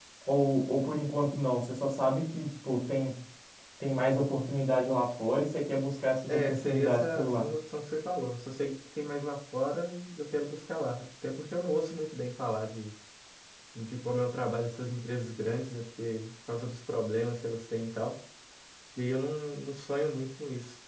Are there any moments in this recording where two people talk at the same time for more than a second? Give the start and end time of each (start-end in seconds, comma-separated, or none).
6.3-7.5